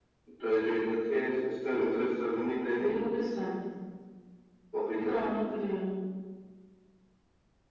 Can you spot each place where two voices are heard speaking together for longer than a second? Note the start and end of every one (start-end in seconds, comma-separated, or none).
none